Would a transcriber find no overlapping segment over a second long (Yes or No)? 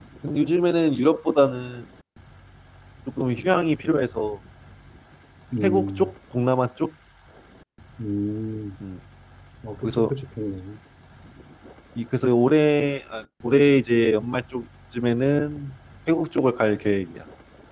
Yes